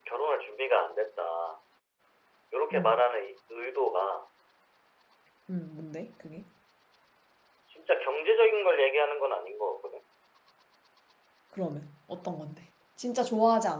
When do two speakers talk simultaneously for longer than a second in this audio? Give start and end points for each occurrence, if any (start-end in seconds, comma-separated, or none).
none